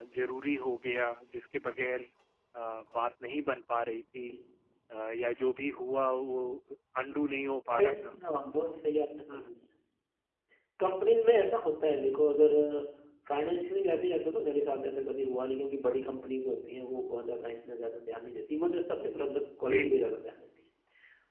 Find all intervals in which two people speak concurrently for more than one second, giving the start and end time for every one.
none

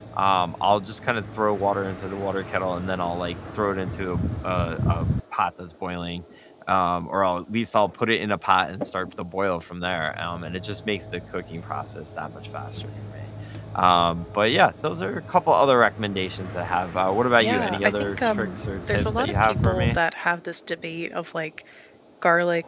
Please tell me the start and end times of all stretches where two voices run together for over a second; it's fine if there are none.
17.4-20.0

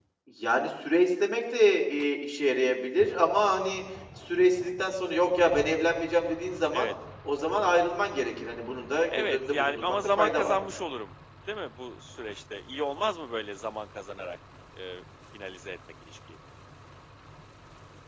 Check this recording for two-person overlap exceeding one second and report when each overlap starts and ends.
9.1-10.6

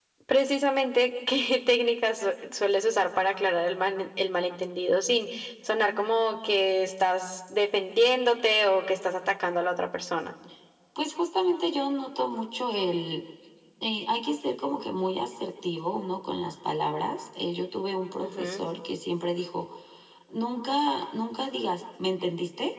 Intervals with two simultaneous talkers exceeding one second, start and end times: none

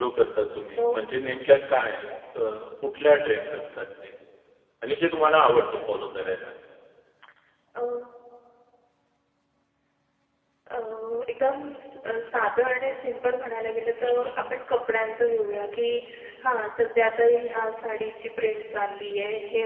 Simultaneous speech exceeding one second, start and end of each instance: none

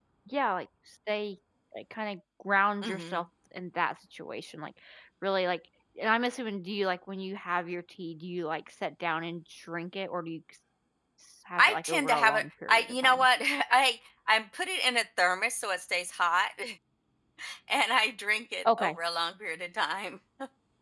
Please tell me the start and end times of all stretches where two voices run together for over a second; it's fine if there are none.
11.6-13.2

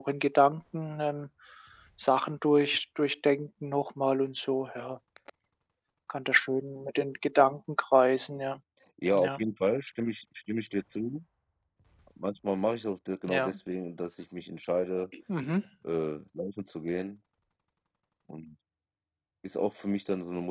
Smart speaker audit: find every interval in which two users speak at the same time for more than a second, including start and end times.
none

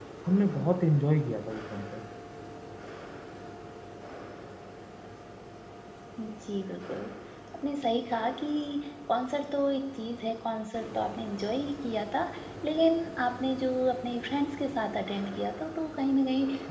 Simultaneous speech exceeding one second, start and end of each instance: none

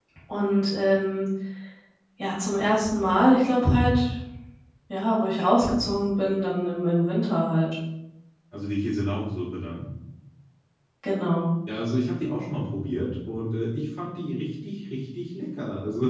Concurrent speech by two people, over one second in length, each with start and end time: none

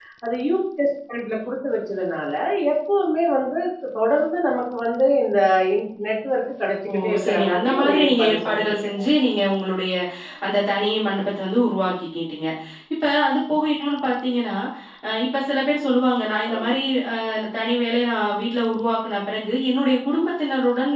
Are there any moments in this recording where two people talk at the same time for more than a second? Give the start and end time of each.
6.9-9.0

